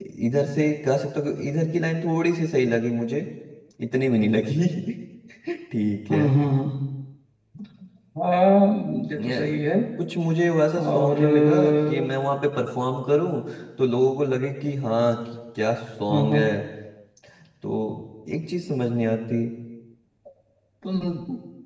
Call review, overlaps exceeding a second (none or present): present